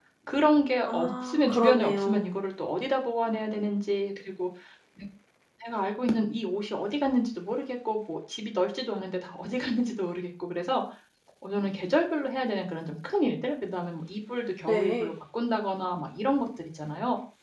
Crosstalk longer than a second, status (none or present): present